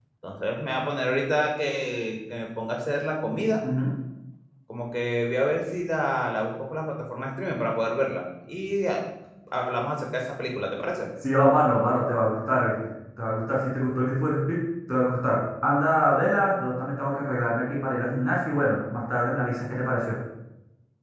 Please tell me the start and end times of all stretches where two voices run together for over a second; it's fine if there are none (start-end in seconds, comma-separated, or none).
none